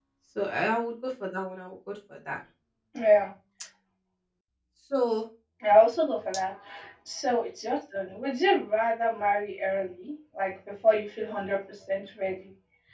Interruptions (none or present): none